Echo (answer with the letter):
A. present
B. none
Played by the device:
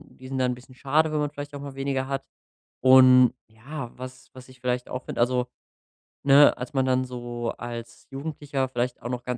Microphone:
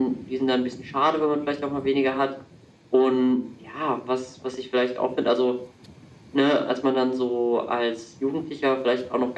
A